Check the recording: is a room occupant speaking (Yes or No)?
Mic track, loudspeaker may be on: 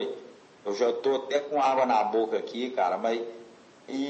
No